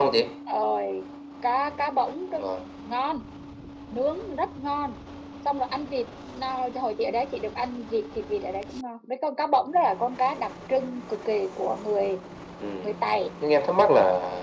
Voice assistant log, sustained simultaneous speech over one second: none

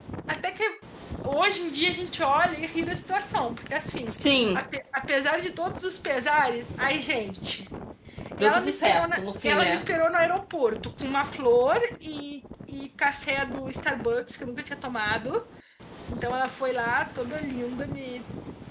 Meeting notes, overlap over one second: present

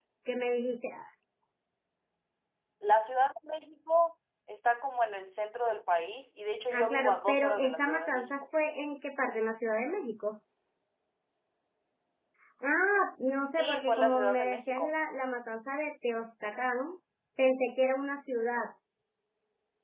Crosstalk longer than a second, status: present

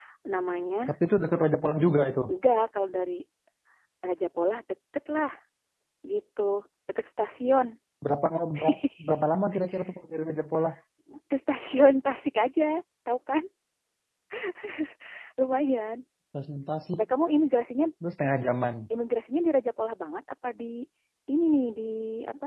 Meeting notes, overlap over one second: none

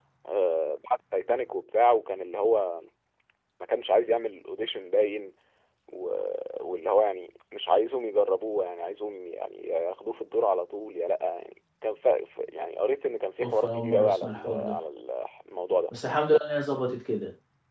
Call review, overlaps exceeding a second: present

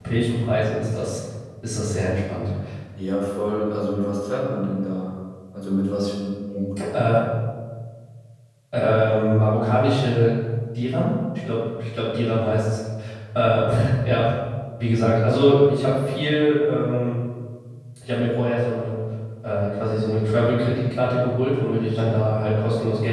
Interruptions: none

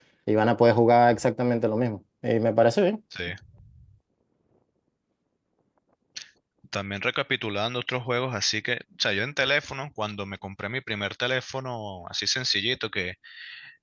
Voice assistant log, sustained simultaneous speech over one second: none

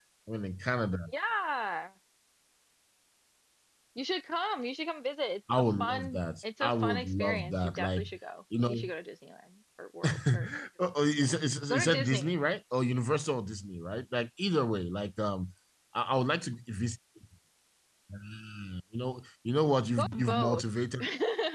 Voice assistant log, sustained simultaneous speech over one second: present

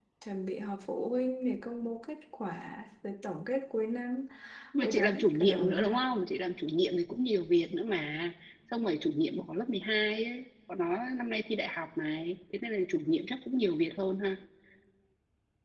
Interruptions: present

